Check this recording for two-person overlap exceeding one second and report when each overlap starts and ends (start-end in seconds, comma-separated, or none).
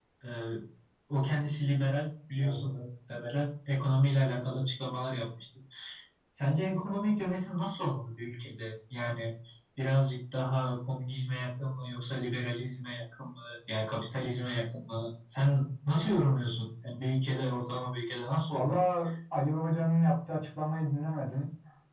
none